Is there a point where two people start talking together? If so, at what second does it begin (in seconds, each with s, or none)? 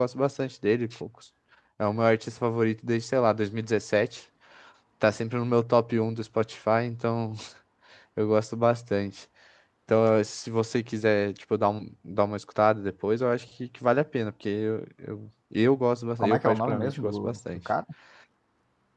16.2 s